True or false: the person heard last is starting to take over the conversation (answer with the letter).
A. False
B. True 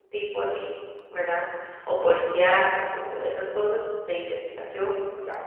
A